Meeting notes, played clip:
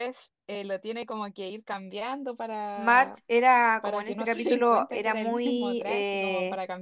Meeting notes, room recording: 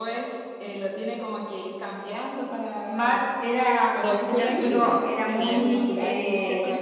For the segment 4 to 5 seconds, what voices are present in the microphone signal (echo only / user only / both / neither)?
both